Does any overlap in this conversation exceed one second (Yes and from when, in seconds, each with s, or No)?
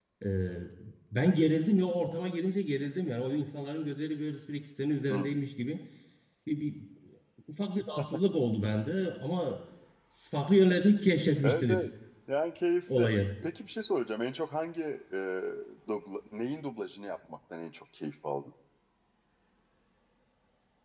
No